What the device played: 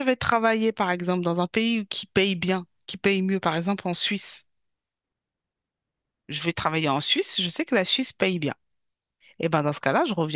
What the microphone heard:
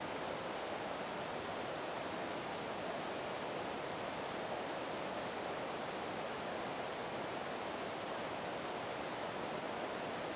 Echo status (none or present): none